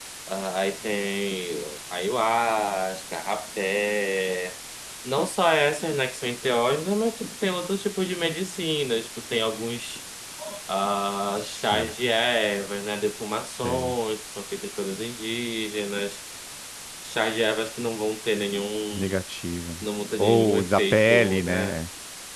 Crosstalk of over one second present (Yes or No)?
Yes